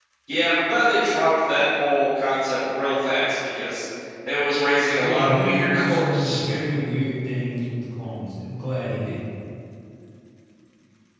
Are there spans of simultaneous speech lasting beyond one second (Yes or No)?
Yes